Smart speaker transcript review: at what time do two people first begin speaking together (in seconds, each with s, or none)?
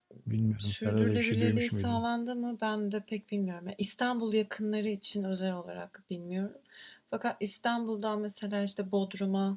0.6 s